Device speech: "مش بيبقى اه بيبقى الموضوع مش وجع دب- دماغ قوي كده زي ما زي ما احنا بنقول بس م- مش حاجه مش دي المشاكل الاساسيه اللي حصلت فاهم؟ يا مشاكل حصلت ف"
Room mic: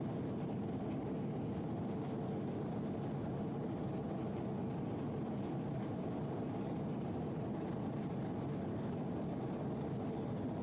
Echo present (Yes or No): No